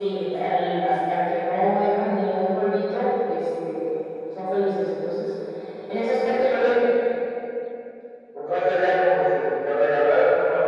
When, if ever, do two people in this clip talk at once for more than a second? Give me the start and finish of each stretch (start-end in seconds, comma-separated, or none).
none